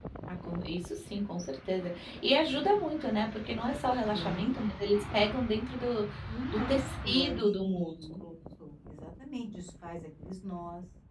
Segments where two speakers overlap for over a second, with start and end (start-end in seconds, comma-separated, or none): 6.5-8.2